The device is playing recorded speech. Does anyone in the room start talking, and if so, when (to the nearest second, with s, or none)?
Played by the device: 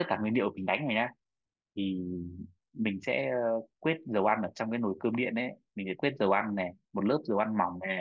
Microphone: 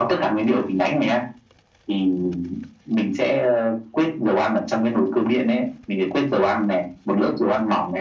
none